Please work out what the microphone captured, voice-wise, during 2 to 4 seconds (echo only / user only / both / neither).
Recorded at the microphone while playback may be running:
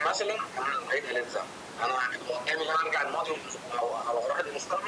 echo only